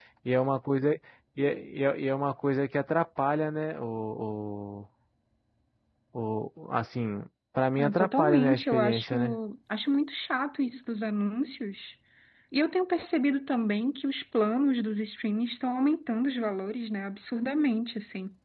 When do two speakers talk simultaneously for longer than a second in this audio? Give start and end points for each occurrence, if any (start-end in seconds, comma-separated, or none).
7.8-9.4